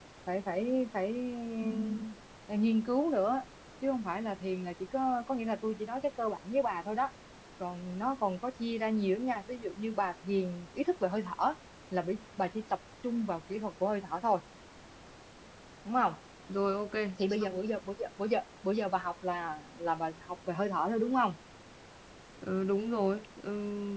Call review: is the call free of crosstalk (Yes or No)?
Yes